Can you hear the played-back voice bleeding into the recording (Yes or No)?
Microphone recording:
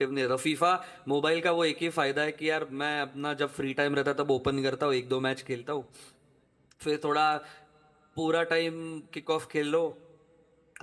No